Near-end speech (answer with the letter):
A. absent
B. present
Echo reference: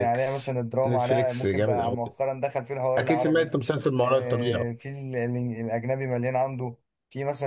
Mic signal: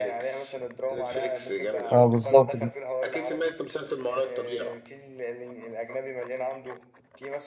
B